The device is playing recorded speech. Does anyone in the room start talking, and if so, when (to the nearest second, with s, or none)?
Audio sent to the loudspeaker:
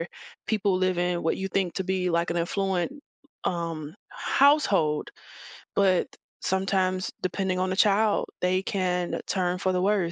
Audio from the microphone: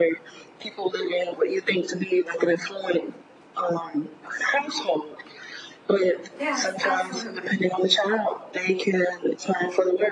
6 s